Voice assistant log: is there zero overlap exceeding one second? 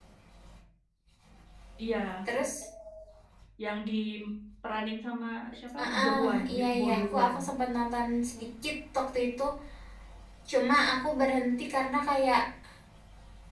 No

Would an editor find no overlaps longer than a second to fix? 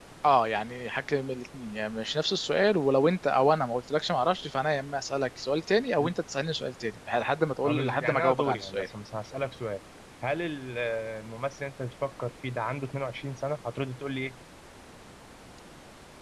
No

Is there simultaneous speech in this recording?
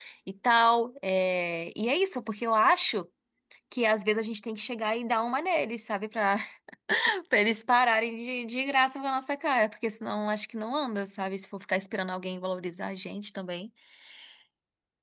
No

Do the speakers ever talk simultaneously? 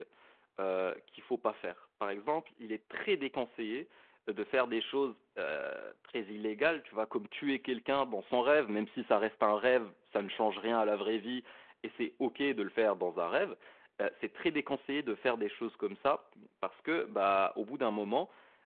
No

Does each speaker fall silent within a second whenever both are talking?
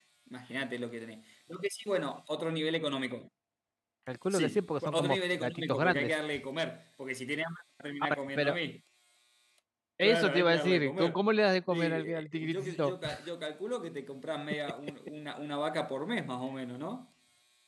No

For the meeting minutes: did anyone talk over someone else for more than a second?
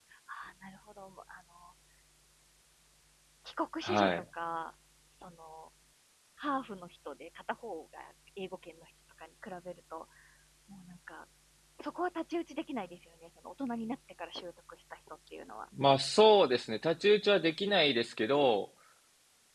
No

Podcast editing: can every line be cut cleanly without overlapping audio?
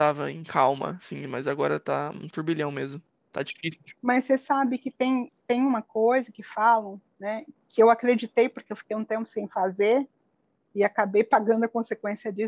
Yes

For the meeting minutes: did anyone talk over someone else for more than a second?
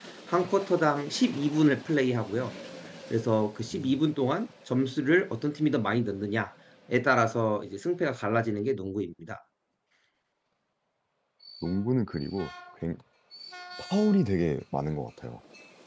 No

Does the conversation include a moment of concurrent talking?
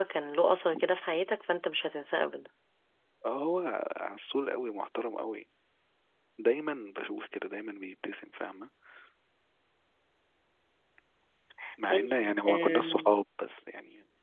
Yes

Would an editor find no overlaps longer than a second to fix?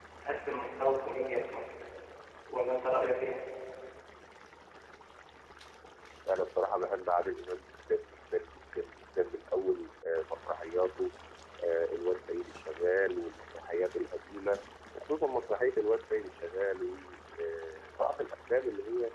Yes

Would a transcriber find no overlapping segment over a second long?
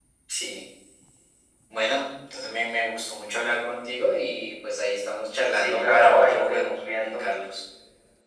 No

